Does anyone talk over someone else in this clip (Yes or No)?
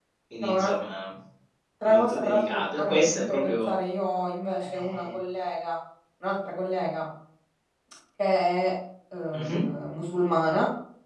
Yes